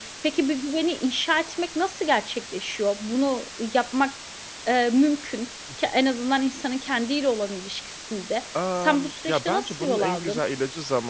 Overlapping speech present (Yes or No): Yes